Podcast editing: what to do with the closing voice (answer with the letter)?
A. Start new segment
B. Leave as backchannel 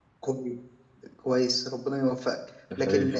B